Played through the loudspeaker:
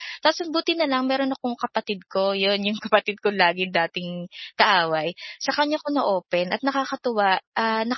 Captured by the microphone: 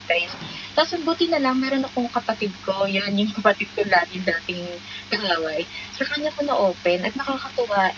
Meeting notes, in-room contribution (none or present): none